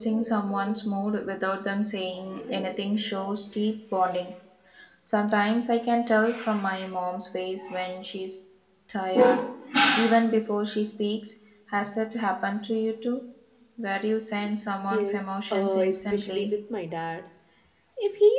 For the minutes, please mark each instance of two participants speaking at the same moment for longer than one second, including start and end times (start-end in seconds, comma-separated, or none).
14.9-16.5